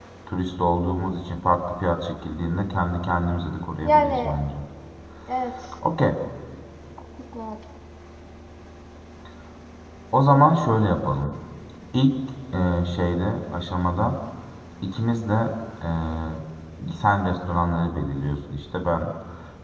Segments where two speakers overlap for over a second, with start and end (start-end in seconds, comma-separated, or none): none